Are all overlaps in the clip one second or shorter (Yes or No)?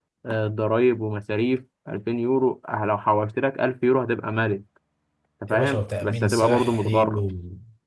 No